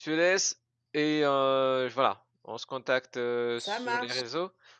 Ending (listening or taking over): listening